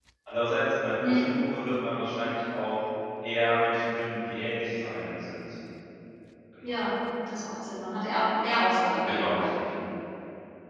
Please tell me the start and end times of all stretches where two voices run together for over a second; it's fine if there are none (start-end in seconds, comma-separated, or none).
none